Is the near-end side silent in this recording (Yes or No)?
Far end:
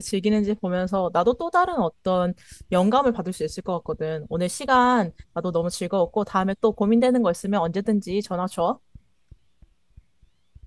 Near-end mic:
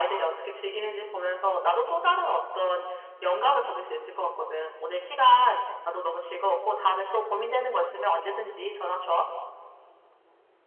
Yes